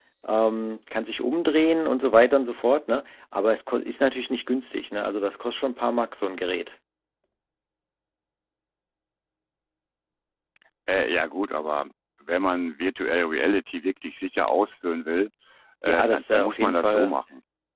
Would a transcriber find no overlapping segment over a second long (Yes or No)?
No